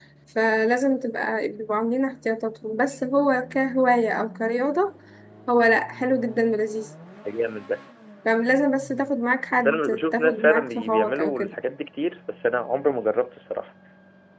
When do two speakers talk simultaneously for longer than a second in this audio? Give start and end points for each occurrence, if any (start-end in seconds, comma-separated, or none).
9.6-11.5